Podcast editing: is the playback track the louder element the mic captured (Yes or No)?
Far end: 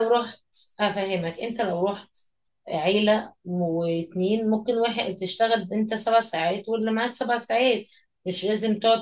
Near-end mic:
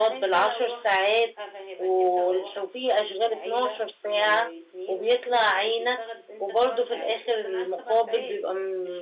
No